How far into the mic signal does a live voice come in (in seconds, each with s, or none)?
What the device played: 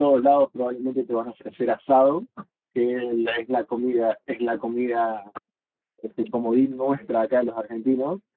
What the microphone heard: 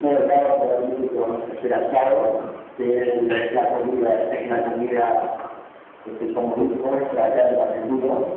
7.2 s